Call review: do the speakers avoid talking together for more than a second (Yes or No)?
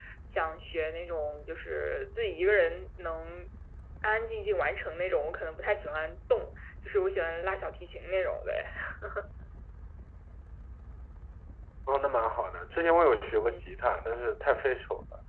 Yes